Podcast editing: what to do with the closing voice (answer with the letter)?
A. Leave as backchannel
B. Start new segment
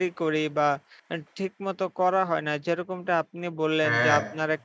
A